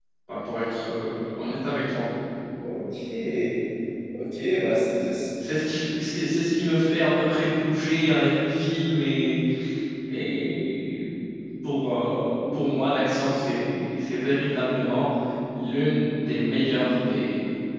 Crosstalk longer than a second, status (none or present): none